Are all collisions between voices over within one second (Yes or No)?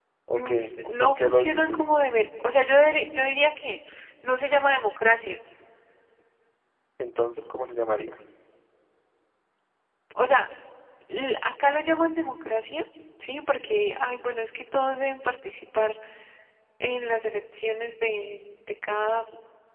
No